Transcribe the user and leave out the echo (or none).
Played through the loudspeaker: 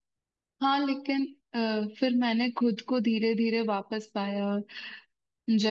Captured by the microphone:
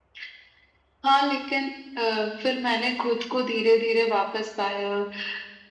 none